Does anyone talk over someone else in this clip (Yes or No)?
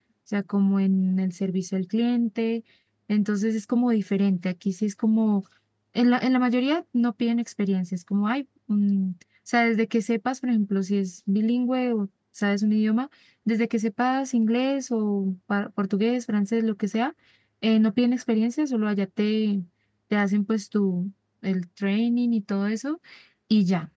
No